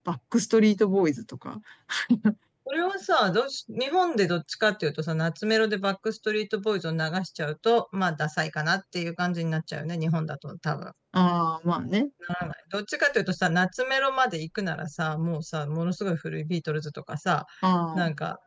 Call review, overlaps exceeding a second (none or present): none